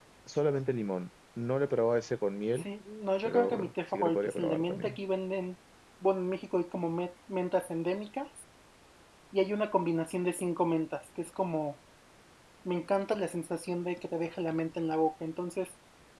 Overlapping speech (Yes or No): Yes